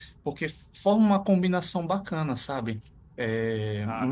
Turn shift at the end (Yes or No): No